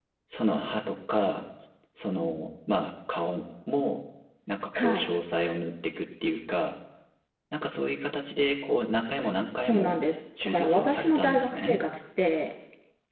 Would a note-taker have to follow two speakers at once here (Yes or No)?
Yes